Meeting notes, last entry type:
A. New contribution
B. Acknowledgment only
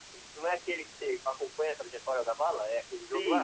A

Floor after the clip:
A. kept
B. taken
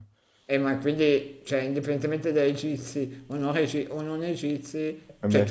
A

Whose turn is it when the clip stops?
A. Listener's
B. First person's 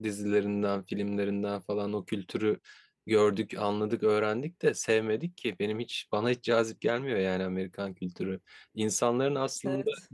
B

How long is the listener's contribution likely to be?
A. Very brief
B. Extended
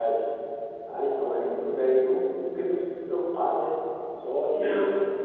A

